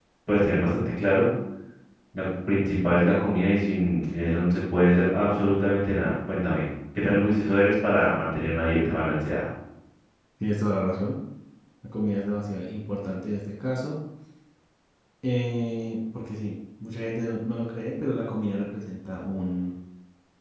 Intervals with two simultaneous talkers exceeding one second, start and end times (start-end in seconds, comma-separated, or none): none